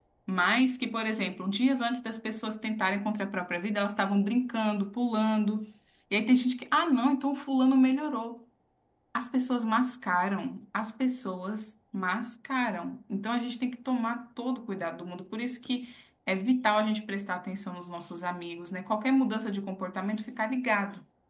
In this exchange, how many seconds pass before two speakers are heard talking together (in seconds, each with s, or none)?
none